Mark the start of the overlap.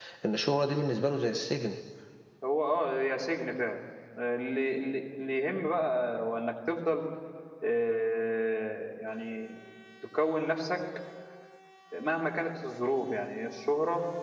none

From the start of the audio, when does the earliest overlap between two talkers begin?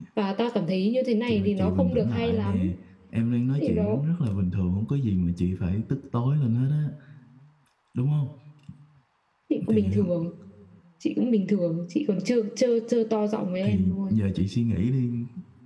1.3 s

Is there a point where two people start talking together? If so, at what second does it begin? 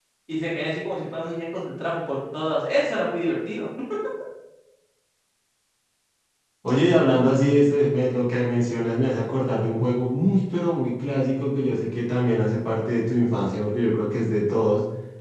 none

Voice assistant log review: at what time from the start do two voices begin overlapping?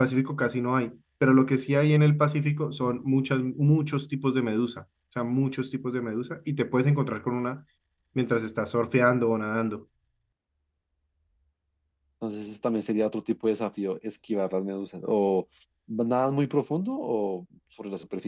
none

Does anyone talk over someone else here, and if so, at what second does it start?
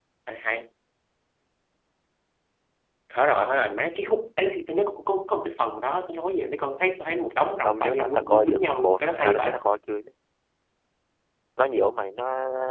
7.6 s

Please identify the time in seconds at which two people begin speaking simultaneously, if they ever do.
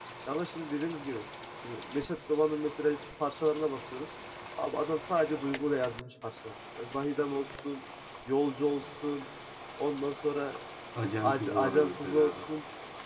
11.2 s

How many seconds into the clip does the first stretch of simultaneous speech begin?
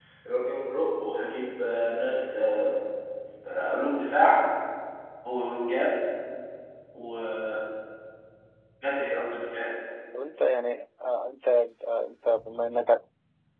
none

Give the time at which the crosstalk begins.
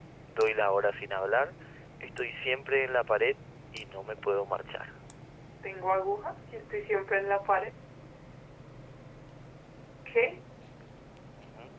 none

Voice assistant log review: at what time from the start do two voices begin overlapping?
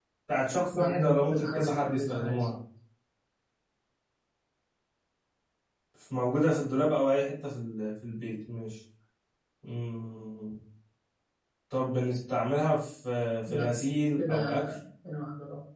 0.7 s

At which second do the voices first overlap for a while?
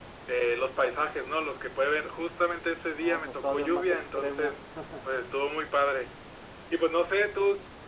3.0 s

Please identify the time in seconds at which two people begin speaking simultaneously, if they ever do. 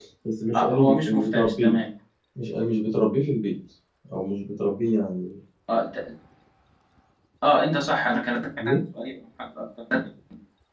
0.5 s

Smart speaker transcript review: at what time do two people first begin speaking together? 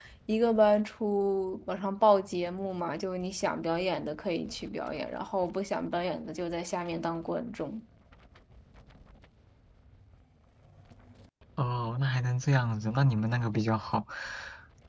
none

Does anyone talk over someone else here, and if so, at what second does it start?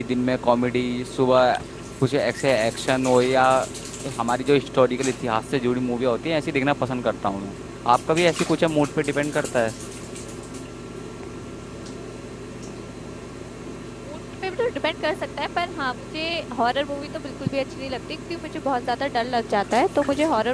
none

